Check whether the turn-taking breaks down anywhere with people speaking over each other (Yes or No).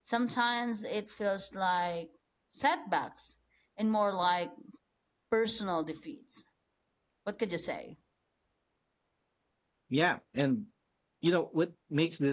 No